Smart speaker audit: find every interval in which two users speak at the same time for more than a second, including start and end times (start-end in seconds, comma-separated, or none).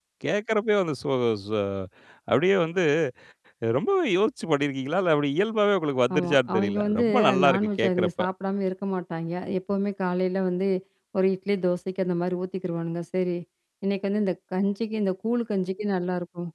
6.2-8.3